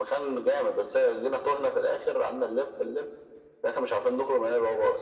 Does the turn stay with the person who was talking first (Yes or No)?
No